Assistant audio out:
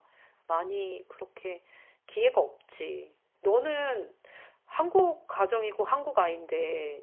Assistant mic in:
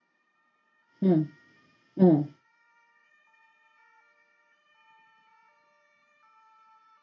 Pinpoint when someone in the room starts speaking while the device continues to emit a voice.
1.0 s

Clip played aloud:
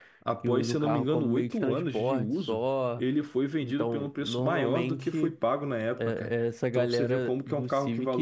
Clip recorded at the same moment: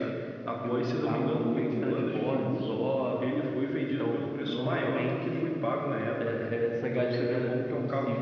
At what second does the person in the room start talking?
none

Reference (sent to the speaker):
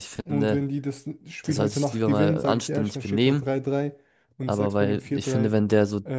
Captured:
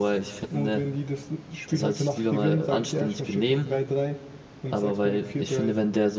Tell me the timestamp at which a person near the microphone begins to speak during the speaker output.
none

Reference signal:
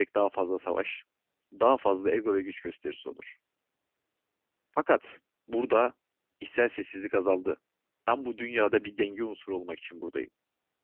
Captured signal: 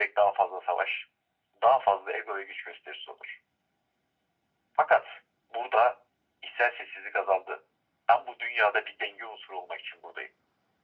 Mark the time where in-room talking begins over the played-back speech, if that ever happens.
none

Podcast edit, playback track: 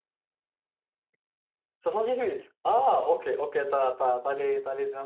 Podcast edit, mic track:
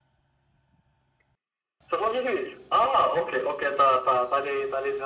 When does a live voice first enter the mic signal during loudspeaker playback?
none

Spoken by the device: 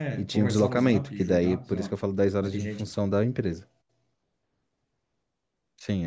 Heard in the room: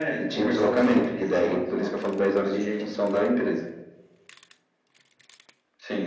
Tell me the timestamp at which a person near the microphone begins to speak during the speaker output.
none

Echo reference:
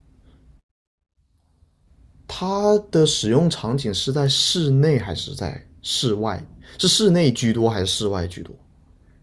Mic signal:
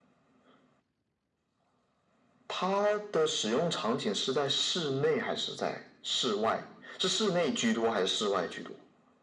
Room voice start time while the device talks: none

